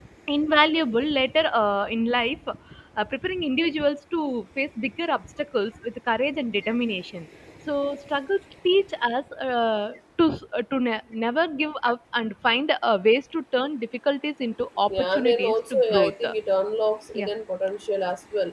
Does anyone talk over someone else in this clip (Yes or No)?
Yes